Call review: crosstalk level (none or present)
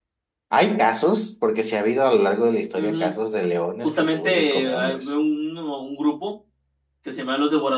present